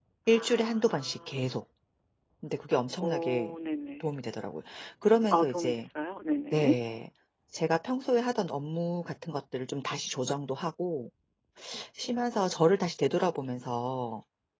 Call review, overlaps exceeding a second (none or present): present